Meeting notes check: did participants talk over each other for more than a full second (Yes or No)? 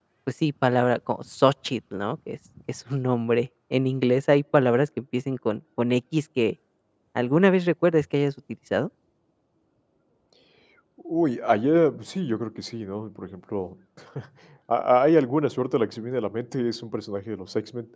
No